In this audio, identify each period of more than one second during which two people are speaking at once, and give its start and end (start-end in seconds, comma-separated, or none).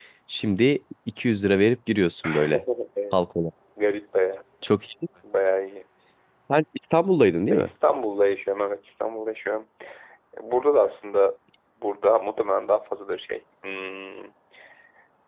none